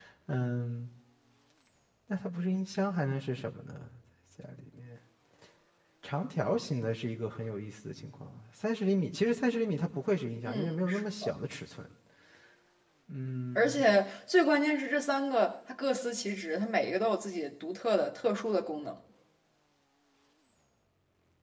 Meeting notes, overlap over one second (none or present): none